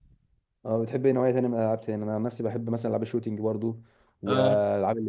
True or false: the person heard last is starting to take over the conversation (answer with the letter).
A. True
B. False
B